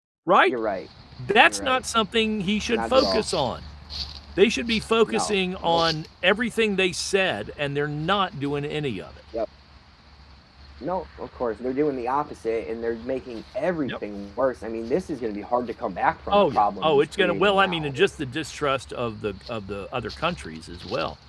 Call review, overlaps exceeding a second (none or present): present